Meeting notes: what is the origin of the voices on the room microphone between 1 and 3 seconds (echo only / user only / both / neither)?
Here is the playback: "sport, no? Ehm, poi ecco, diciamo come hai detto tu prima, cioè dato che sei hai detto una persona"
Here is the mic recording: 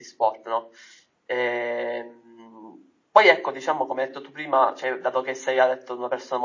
echo only